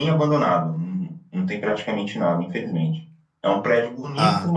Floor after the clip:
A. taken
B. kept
B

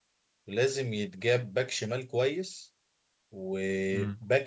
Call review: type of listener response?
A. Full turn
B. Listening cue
B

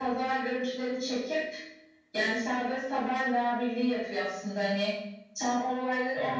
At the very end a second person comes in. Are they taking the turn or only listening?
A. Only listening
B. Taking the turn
A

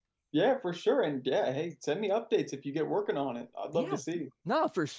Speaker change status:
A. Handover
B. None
A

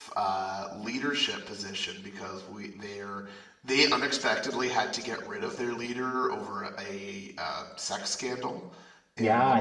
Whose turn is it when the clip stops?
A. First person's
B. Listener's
B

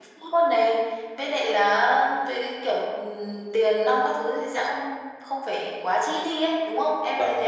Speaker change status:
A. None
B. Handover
B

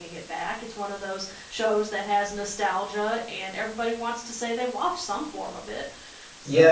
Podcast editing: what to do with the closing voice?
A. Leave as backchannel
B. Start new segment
B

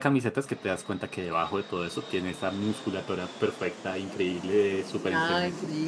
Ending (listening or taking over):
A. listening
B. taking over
B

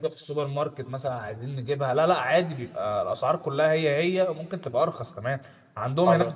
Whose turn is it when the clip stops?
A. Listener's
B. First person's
B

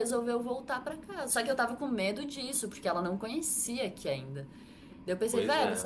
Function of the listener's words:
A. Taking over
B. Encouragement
B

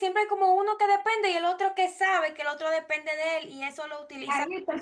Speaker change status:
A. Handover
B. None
A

